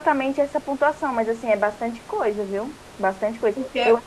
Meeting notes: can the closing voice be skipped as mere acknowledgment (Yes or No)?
Yes